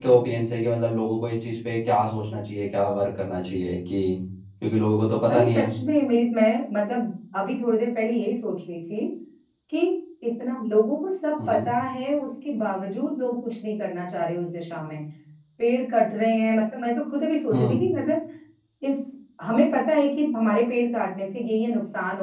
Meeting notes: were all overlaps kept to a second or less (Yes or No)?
Yes